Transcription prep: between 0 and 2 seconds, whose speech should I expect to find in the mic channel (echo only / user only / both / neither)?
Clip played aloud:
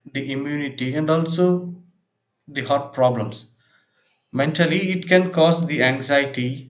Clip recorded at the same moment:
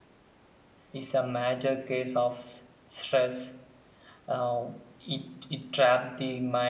user only